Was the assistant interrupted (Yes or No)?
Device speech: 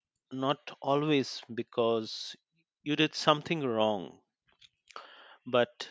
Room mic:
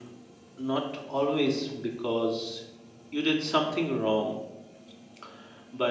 No